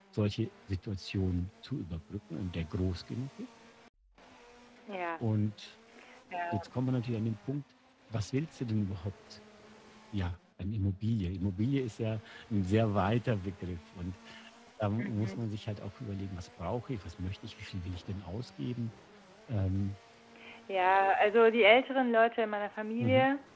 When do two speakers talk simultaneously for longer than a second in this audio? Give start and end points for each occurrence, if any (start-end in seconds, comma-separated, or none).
none